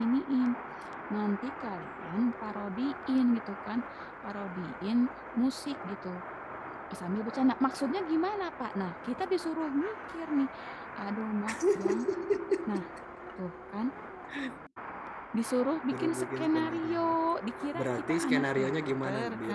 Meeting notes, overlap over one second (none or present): present